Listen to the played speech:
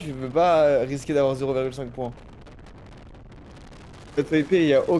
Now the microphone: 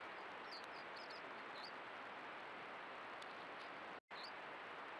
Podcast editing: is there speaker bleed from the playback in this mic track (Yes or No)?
No